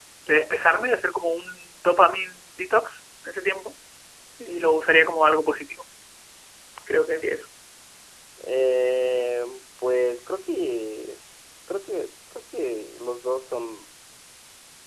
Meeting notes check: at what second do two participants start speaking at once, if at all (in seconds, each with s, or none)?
none